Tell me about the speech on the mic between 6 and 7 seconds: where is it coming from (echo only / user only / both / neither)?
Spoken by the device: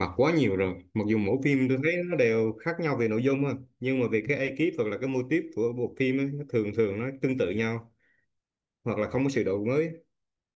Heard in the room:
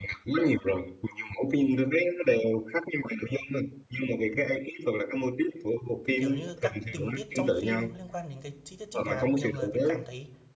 both